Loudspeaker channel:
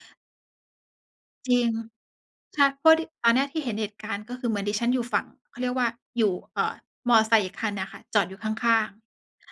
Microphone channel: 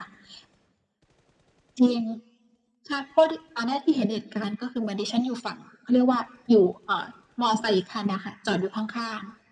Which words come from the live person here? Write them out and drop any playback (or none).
none